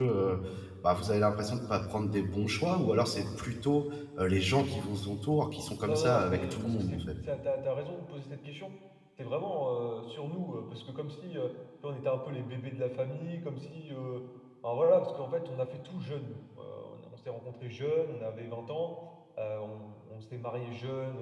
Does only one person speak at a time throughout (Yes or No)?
No